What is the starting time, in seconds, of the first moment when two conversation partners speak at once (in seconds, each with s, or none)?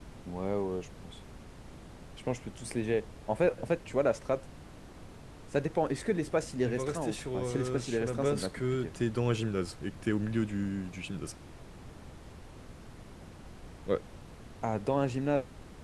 6.6 s